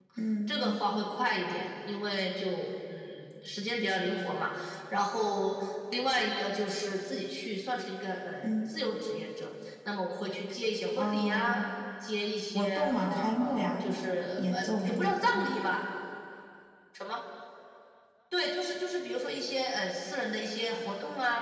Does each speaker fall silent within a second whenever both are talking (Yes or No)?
No